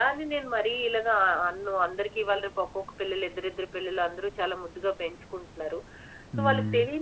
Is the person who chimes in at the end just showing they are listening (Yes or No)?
Yes